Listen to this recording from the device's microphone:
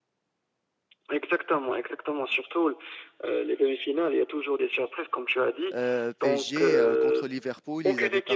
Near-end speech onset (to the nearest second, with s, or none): 6 s